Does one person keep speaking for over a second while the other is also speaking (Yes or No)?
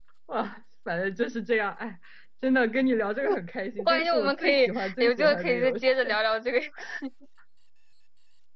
Yes